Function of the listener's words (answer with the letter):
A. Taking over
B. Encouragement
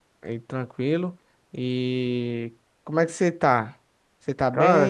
A